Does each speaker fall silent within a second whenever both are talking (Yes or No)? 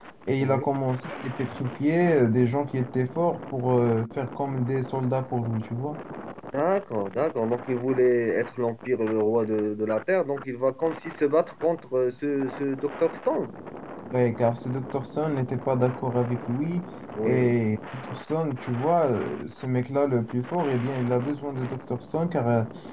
Yes